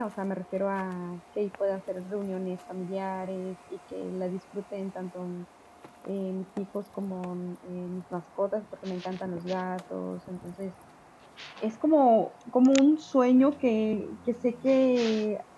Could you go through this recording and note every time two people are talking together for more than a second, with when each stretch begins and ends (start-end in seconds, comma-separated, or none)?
none